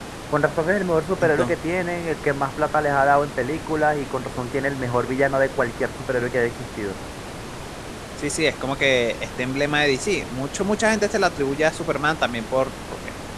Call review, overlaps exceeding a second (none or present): none